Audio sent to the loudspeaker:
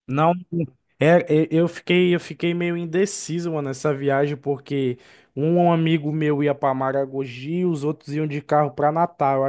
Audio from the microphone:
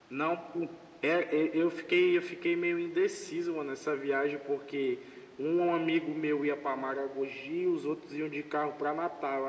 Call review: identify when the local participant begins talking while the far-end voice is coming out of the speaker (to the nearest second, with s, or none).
none